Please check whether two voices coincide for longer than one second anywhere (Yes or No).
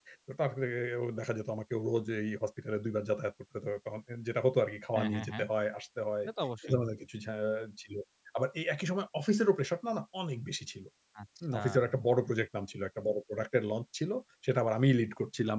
No